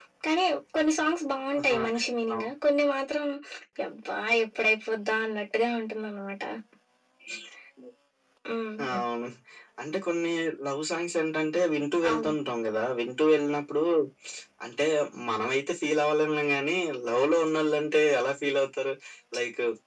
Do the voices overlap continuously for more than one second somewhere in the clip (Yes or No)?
No